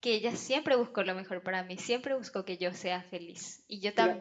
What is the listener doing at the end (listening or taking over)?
listening